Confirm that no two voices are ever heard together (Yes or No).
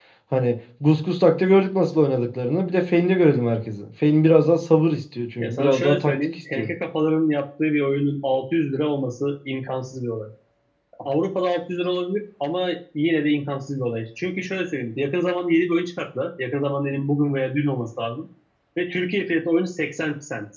No